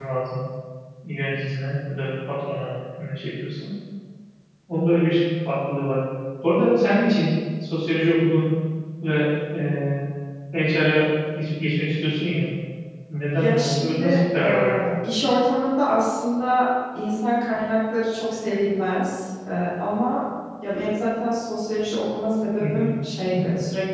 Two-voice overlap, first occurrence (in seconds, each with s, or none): 13.3 s